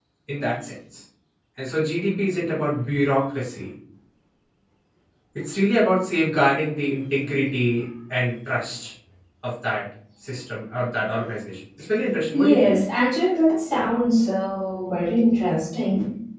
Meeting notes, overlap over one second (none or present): none